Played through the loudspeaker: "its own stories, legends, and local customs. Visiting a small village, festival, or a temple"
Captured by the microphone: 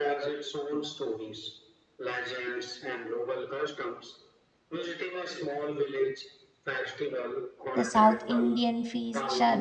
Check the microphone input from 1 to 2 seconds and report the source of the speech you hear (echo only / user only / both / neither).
echo only